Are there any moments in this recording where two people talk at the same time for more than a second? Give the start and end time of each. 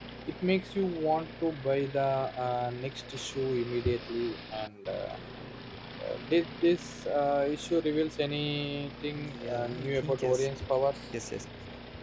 9.2-10.5

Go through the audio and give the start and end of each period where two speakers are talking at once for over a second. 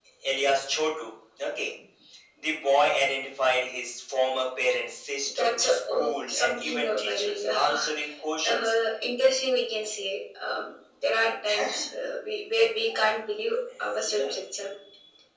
5.4-7.7

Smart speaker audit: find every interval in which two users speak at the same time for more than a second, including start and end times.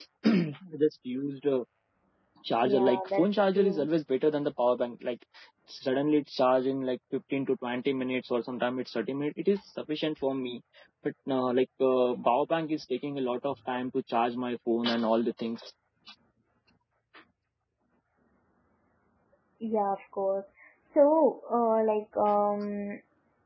2.6-3.9

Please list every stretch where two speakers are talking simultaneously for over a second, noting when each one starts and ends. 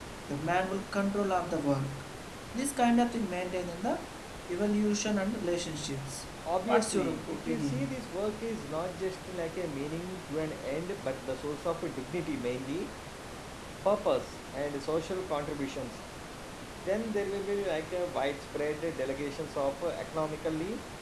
6.7-7.9

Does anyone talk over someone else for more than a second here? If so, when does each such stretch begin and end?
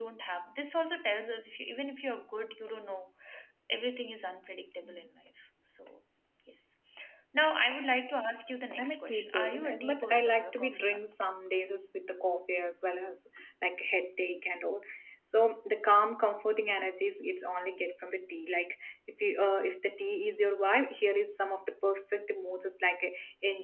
8.8-11.0

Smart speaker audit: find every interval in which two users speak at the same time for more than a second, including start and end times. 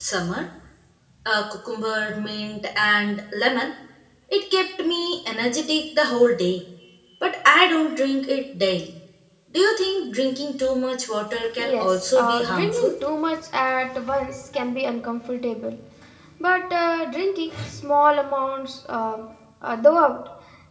11.6-12.9

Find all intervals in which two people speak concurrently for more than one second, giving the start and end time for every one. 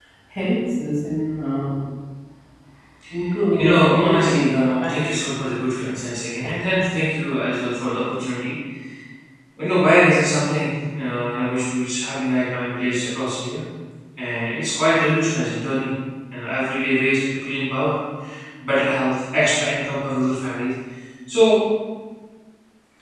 3.6-5.0

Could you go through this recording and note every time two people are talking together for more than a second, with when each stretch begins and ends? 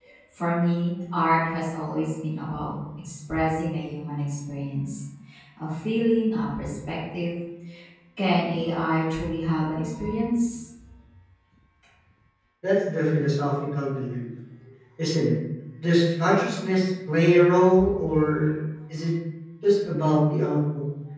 none

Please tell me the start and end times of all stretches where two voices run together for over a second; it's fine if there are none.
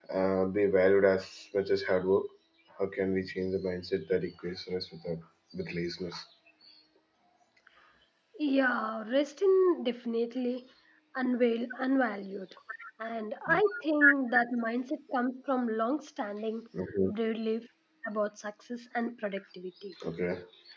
none

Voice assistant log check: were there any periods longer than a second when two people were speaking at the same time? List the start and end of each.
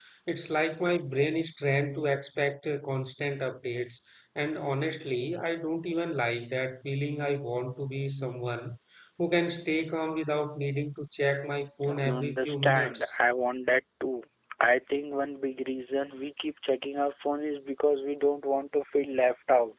11.9-13.1

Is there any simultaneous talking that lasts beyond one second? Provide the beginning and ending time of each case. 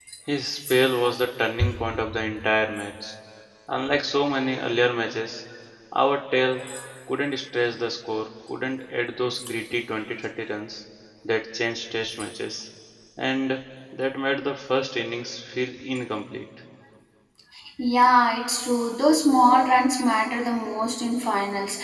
none

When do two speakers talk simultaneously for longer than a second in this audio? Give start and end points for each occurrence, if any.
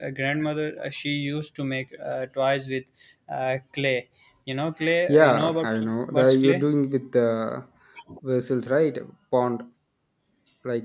5.1-6.6

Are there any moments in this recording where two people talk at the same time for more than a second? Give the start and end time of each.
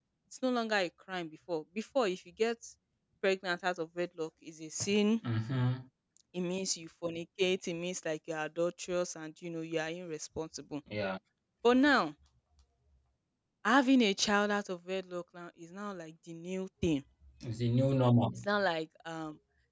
none

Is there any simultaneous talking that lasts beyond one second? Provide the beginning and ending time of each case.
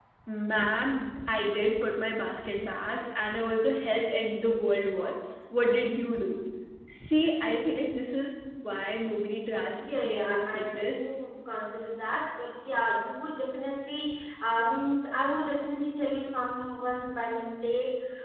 9.8-11.1

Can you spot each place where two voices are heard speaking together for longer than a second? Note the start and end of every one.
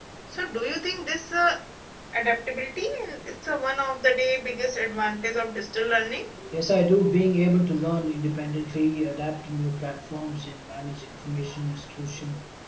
none

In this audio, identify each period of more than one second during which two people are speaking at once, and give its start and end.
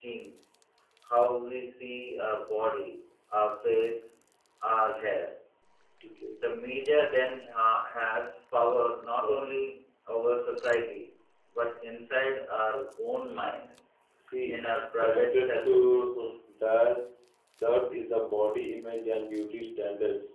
15.0-16.3

